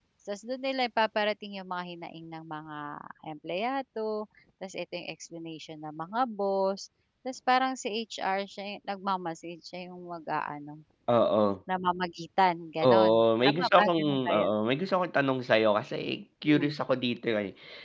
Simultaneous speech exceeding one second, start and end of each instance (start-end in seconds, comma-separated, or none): 12.8-14.5